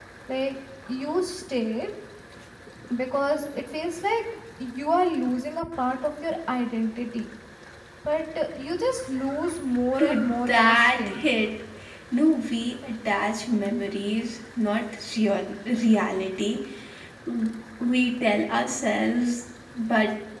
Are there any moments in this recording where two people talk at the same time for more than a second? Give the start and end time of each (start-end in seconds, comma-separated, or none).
10.0-11.3